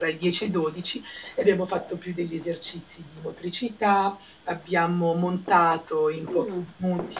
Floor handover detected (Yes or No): No